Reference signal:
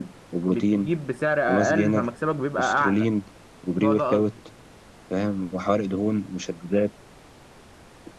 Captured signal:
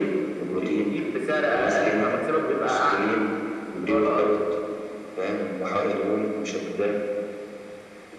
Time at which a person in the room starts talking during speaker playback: none

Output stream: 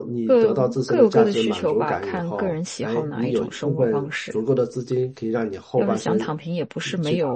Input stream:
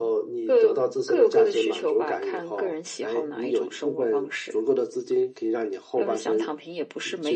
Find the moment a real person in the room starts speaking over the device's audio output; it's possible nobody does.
none

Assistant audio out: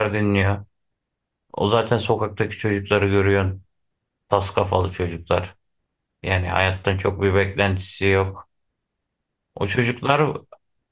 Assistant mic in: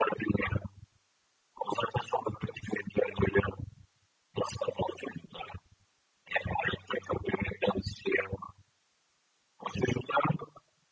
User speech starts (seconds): none

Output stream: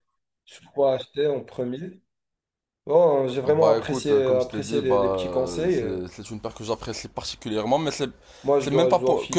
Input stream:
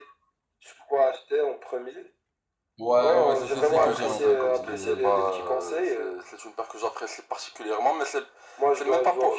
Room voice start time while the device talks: 2.8 s

